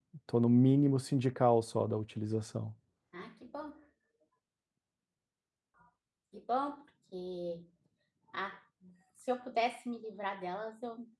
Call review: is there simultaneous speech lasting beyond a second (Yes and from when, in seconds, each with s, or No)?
No